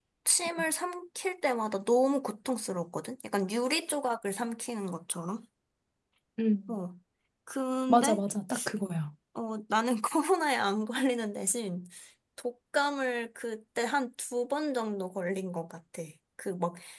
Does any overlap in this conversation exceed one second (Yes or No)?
No